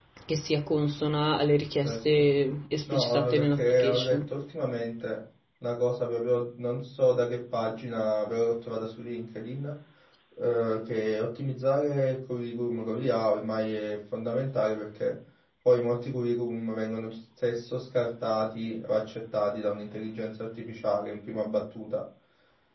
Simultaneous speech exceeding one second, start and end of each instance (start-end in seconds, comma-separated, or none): 2.9-4.2